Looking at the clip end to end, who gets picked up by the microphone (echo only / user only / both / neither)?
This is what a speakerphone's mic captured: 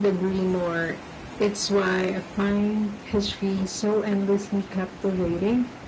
echo only